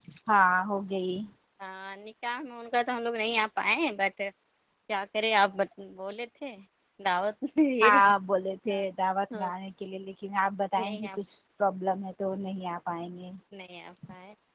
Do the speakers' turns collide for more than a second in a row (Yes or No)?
No